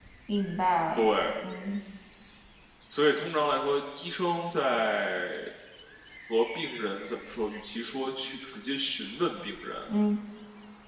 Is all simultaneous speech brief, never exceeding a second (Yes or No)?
Yes